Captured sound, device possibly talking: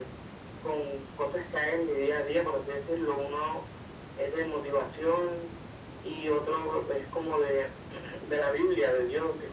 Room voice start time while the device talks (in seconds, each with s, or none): none